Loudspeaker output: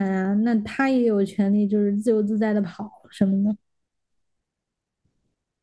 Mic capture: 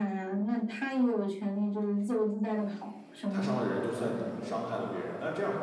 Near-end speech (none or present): present